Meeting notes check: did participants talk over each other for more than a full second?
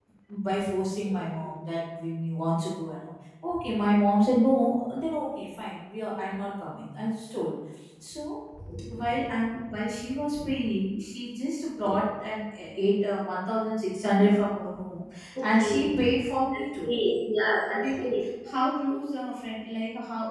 No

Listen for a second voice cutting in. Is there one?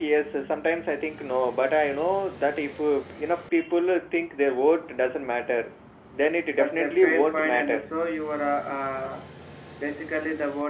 Yes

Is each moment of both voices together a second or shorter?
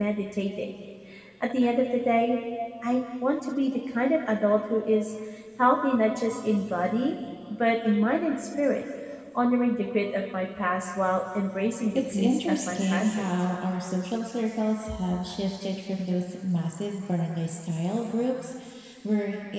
No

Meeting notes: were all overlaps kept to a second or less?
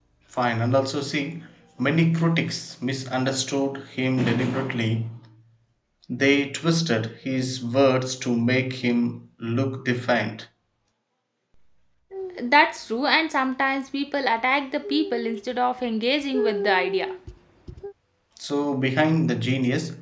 Yes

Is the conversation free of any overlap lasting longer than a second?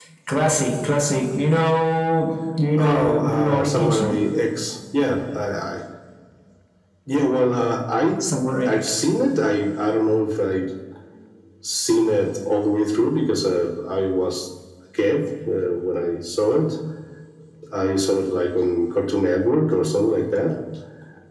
No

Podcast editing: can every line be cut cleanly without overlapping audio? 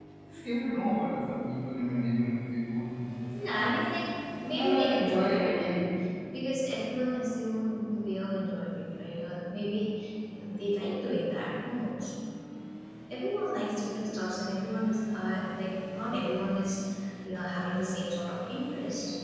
No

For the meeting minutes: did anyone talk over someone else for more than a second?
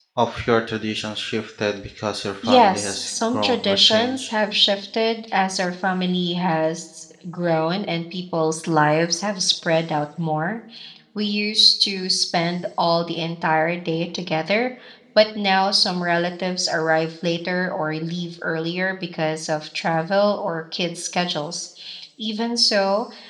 Yes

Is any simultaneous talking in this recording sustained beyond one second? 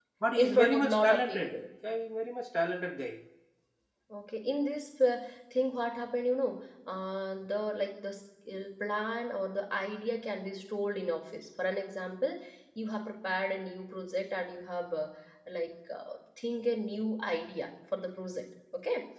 Yes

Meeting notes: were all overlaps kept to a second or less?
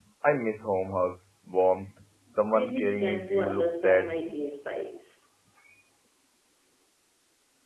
No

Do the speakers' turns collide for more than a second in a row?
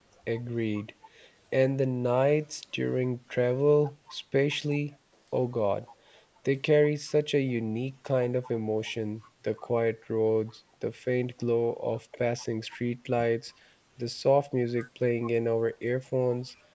No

